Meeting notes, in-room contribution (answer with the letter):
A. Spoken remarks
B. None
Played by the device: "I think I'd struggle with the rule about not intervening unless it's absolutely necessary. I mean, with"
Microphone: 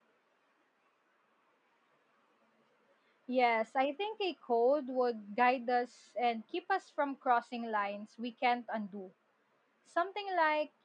A